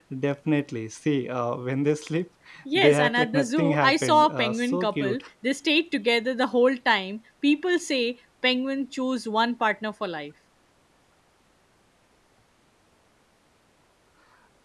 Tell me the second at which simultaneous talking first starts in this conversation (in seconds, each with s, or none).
2.8 s